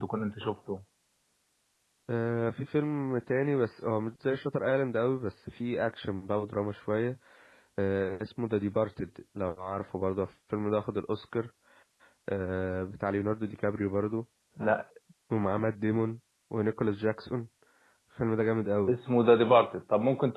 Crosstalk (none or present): none